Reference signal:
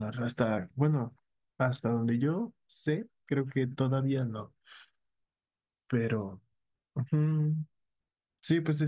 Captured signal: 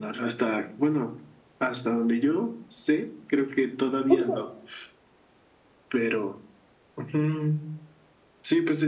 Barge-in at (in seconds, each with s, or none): 4.1 s